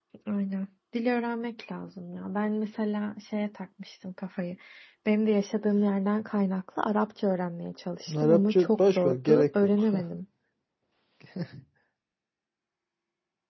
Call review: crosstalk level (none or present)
present